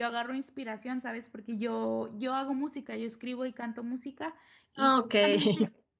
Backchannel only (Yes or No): Yes